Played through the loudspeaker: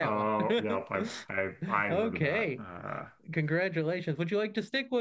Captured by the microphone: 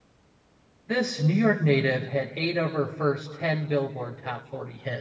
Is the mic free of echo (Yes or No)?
Yes